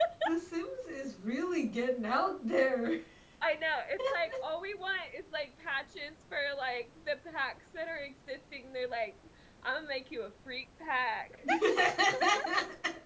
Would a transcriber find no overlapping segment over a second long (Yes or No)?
Yes